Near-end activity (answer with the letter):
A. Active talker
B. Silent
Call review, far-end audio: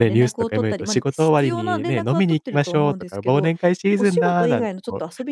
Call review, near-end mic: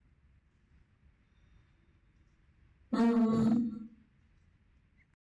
A